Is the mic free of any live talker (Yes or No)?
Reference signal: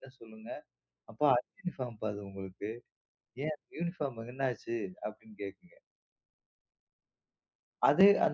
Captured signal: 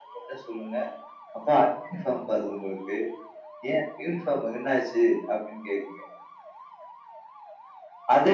Yes